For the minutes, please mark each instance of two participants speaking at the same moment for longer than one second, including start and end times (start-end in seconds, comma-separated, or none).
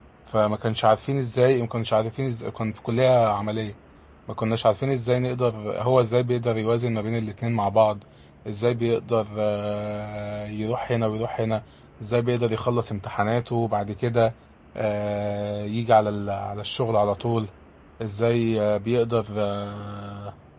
none